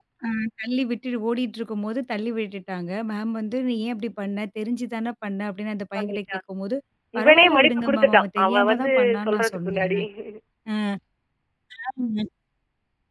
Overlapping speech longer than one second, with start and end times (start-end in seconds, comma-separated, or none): 7.2-10.0